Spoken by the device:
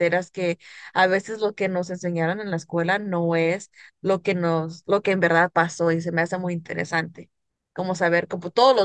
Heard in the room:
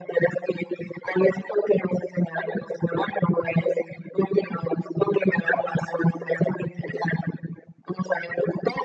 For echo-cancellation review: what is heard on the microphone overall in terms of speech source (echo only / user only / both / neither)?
echo only